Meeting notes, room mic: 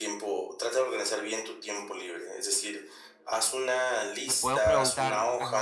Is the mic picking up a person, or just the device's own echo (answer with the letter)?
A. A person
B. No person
A